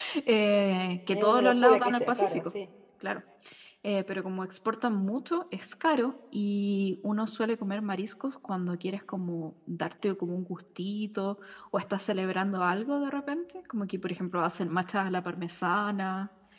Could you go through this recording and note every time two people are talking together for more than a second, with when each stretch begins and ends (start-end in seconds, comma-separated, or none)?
1.1-2.5